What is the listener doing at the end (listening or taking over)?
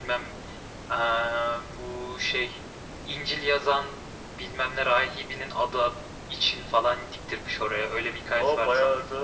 taking over